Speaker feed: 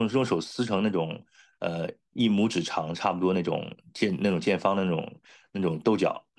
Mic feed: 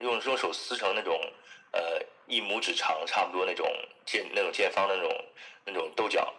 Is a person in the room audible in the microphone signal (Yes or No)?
No